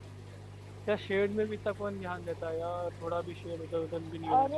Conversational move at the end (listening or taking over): taking over